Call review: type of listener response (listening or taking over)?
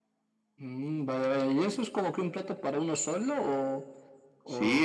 taking over